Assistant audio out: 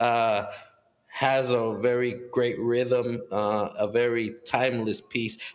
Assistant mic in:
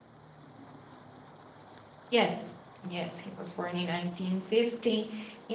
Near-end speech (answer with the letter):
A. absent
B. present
B